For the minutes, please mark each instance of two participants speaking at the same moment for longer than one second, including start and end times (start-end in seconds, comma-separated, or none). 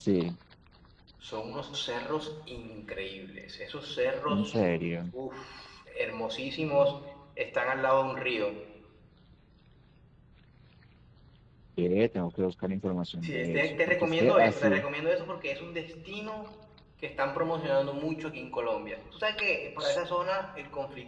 13.2-14.8